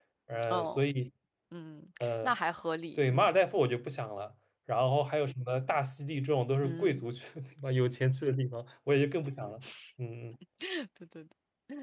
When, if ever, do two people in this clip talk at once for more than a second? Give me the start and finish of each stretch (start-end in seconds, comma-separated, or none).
none